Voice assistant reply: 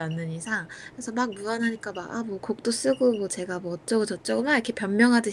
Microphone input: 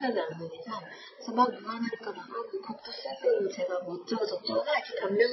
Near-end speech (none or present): none